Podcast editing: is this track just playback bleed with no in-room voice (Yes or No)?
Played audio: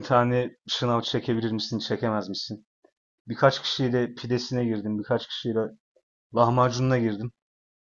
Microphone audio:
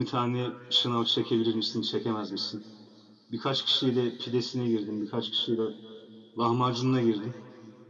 Yes